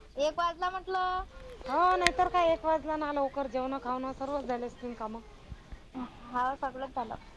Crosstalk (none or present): none